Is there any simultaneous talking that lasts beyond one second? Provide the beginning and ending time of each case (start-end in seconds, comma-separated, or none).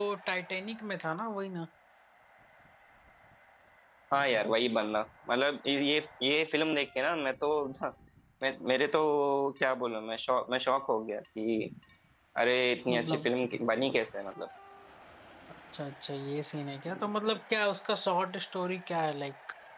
none